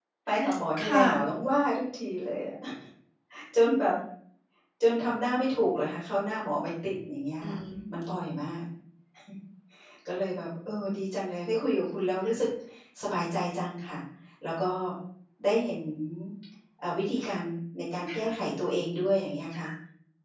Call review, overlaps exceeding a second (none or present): none